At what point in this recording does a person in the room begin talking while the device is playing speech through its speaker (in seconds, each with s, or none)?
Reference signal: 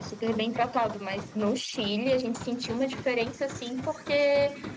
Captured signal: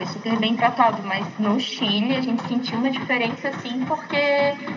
none